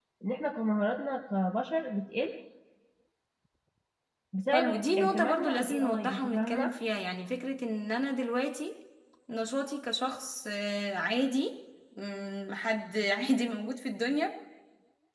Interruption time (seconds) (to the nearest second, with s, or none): 5 s